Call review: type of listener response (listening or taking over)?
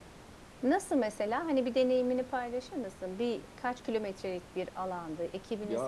taking over